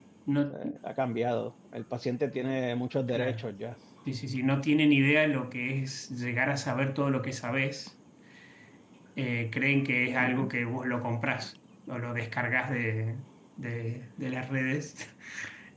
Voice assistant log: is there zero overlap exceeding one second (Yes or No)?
Yes